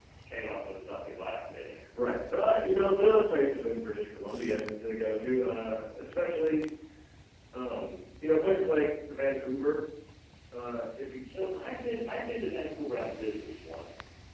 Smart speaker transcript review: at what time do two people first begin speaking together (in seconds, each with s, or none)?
none